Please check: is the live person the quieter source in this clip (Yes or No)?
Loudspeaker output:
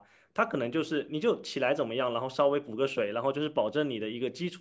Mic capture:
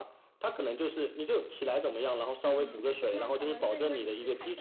Yes